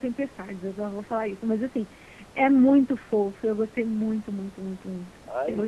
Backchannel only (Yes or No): No